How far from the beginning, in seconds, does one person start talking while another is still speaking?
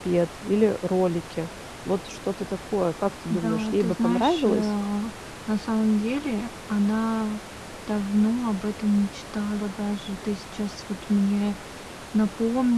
3.3 s

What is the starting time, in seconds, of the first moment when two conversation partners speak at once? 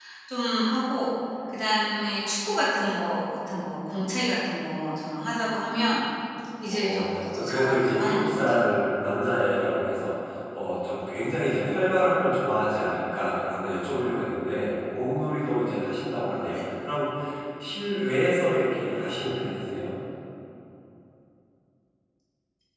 6.7 s

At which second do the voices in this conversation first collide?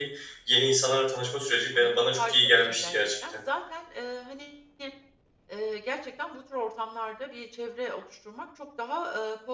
1.8 s

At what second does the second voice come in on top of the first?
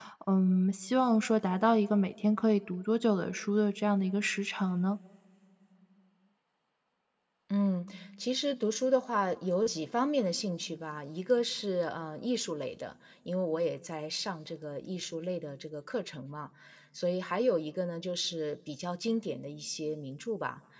none

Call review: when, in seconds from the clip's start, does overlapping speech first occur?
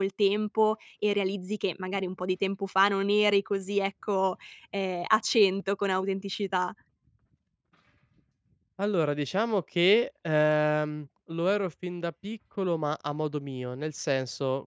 none

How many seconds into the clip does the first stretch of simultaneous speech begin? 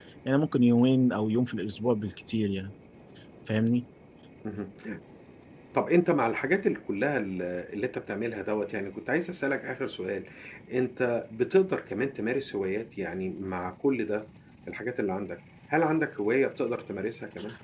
none

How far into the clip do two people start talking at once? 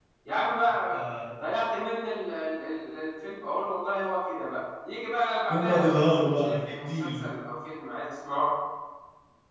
5.5 s

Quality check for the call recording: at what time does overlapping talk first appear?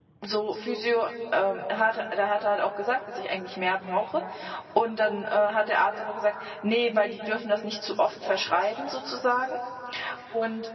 none

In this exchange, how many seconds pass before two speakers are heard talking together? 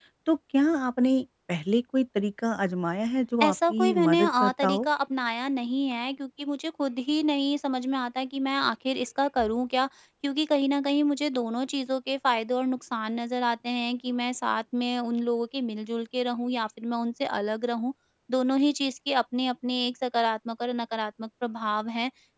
3.4 s

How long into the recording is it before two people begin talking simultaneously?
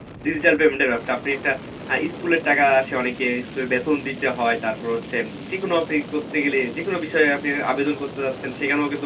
none

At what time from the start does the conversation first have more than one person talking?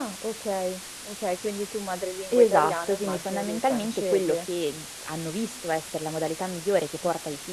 2.3 s

